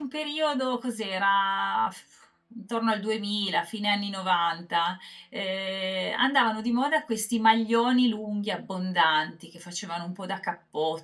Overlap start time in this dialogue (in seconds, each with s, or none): none